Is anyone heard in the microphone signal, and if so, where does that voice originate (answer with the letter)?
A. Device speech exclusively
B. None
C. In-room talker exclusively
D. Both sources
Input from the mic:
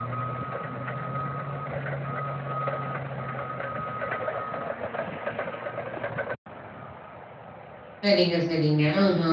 C